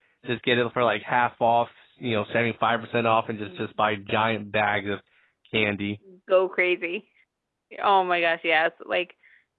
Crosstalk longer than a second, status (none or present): none